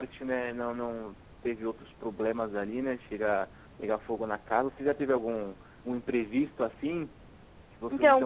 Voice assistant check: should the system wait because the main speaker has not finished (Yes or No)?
No